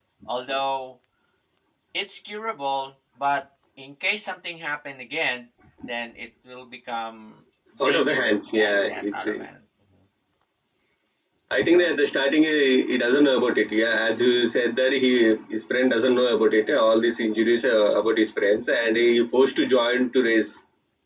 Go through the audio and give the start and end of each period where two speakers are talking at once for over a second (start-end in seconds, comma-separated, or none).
7.8-9.2